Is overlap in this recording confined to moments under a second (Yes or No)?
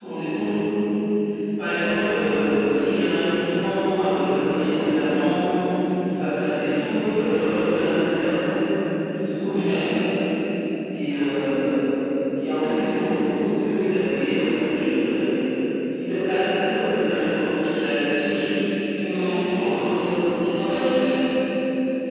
Yes